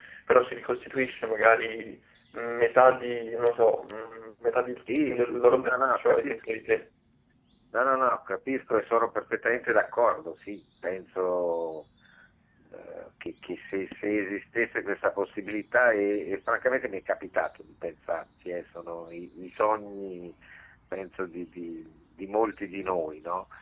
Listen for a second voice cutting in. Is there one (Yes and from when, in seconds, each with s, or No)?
Yes, from 4.9 s